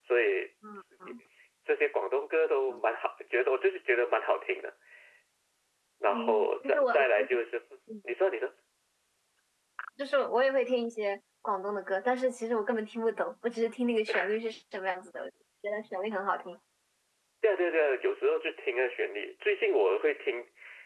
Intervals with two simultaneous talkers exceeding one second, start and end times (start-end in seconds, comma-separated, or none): 6.1-7.4